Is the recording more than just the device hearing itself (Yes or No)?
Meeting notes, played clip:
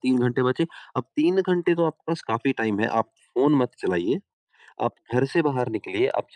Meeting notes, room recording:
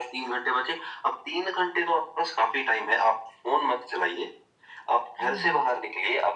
Yes